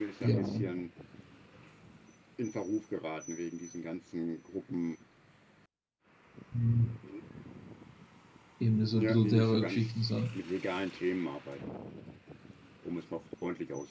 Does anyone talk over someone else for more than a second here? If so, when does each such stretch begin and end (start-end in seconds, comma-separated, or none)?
8.9-10.2